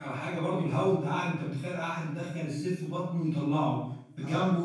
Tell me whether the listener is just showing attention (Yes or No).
Yes